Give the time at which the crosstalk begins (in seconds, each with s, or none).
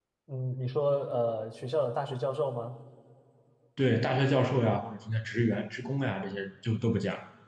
none